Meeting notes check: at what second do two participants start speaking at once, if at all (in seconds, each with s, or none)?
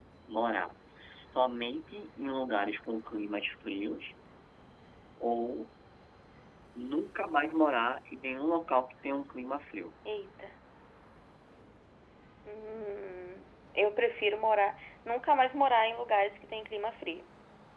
none